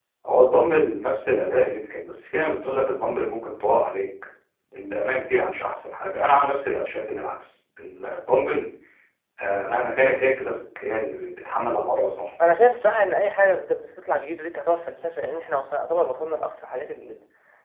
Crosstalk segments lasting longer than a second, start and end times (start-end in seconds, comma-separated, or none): none